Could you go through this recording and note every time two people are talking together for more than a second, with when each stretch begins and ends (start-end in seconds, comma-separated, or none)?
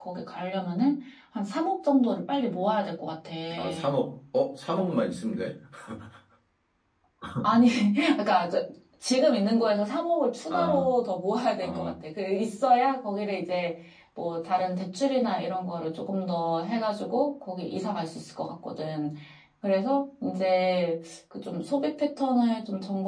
none